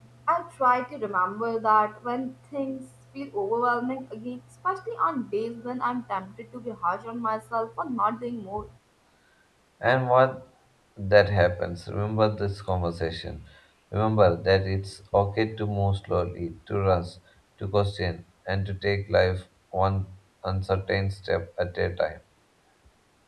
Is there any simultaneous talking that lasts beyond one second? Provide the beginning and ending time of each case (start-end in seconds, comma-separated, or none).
none